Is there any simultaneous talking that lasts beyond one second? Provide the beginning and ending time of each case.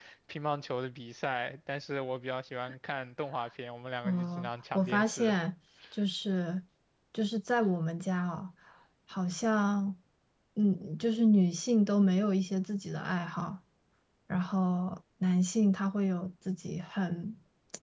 4.0-5.3

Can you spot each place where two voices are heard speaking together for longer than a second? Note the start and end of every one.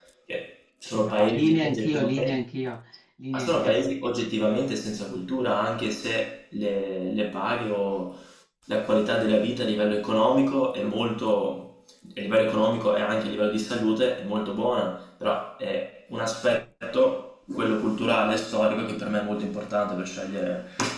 0.8-2.4

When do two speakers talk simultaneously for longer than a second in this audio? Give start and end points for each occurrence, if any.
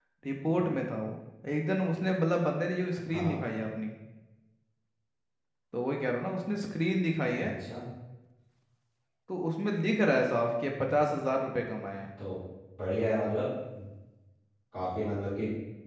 none

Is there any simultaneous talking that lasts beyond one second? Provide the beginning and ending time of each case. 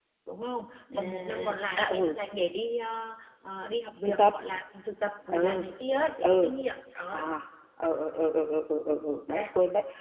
1.0-2.2

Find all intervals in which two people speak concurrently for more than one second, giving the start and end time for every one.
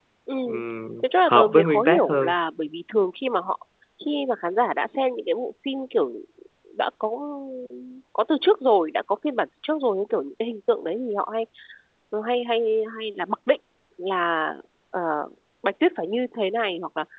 1.0-2.3

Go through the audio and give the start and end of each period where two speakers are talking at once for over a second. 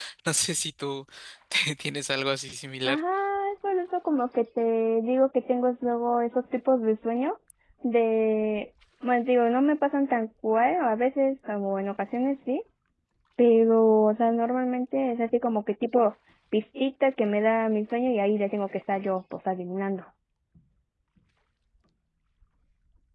none

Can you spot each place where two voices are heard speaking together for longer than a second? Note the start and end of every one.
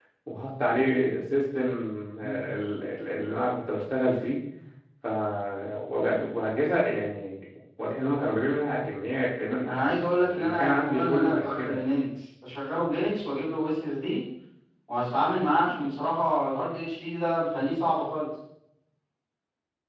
9.7-11.8

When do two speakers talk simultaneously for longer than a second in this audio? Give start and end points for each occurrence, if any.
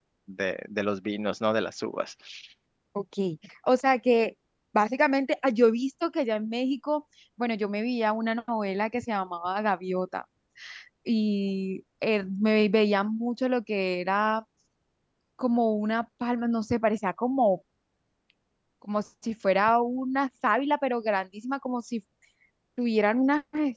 none

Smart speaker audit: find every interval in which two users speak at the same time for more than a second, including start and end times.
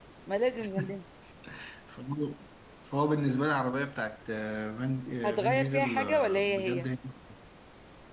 5.2-6.9

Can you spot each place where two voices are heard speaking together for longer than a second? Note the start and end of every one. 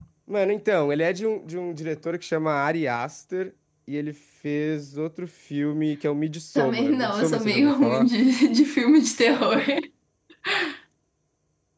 6.5-8.1

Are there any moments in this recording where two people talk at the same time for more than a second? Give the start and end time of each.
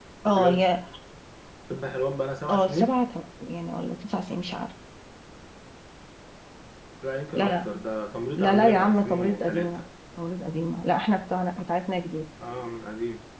8.4-9.8

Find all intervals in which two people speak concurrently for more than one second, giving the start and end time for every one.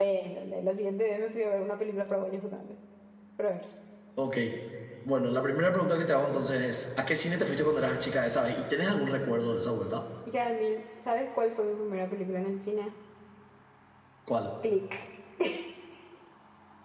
none

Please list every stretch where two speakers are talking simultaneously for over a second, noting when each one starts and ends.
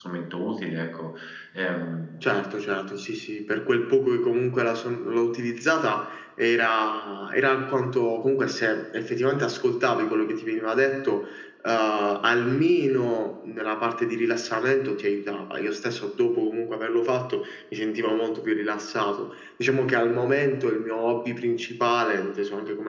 none

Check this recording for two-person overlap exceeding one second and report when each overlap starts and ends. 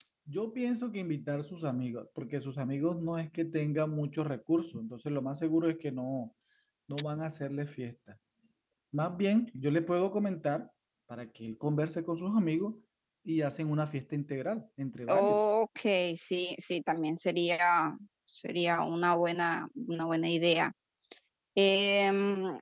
none

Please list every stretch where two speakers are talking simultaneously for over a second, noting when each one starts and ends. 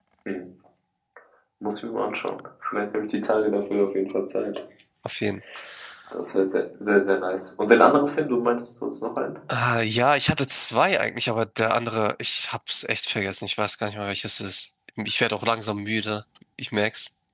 none

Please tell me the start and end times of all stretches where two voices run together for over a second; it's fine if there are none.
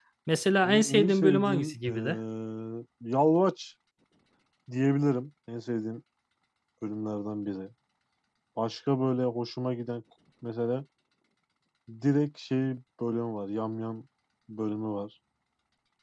0.6-2.2

